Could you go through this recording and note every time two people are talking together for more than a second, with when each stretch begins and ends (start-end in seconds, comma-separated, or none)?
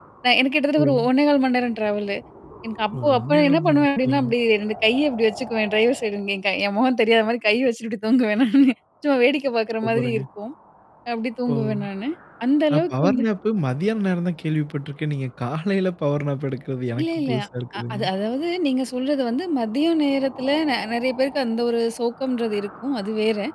2.9-4.3